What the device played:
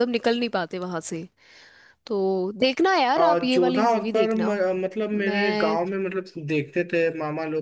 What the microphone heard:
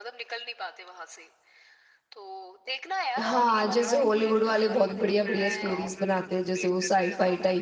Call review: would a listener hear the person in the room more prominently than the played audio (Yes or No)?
Yes